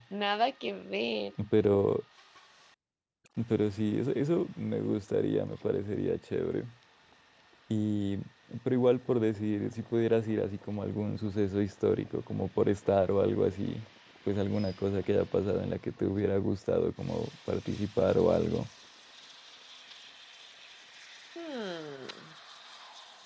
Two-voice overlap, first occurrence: none

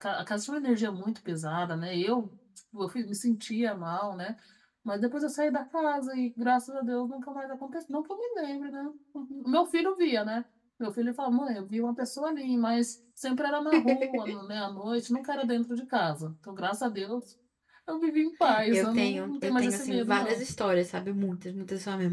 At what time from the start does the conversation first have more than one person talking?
19 s

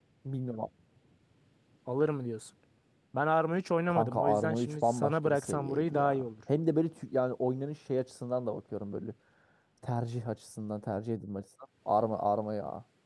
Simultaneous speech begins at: 4 s

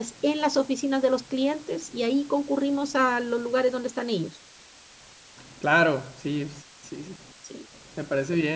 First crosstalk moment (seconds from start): none

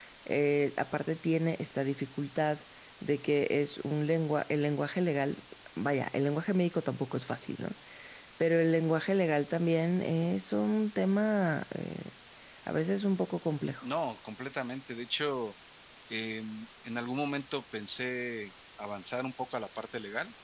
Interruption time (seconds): none

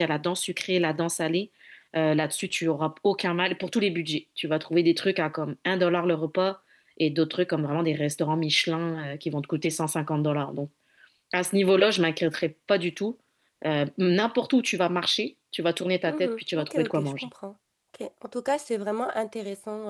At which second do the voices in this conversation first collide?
16 s

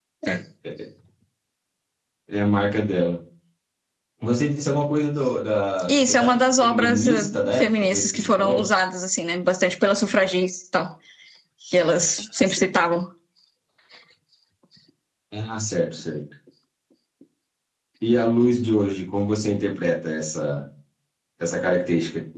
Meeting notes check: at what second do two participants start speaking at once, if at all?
6 s

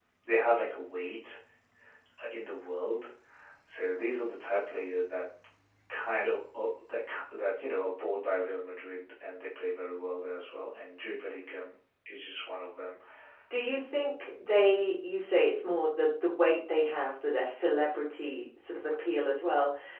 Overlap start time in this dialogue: none

